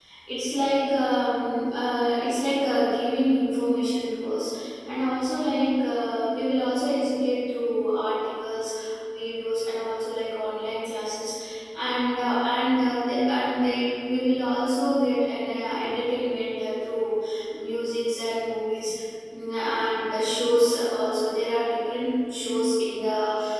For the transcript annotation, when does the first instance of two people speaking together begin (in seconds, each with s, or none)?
none